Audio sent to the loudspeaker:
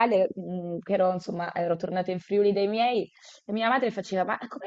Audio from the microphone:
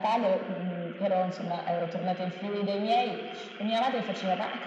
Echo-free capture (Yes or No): No